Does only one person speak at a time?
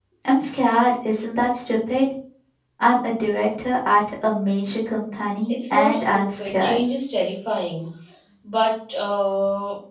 No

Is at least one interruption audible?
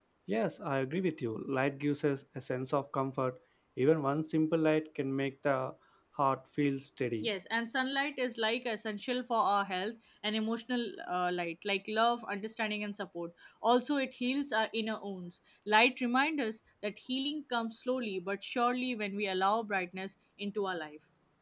No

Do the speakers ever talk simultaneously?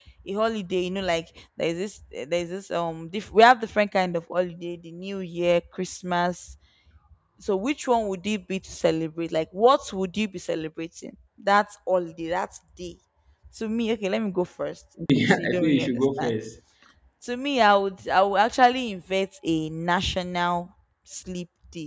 Yes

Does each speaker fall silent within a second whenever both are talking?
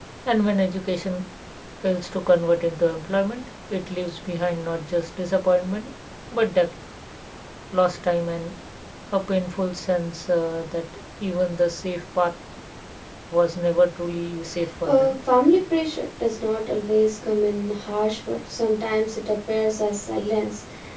Yes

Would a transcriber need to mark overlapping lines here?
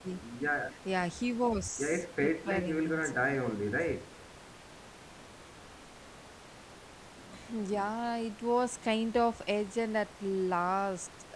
Yes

